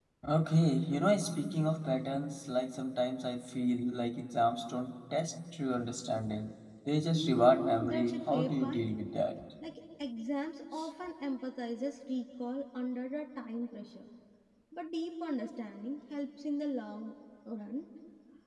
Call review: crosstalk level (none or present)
present